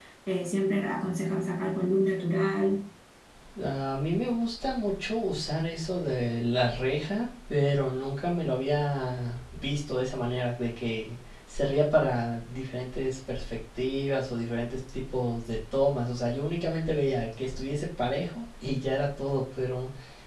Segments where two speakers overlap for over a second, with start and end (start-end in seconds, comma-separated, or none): none